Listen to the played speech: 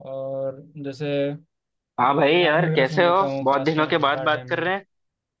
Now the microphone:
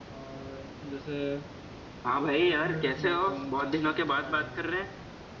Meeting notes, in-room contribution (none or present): none